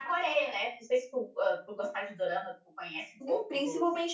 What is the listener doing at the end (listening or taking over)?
taking over